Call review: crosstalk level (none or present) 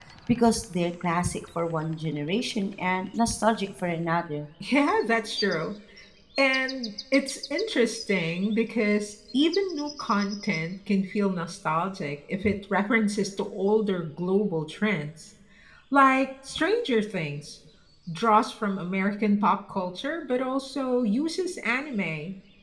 none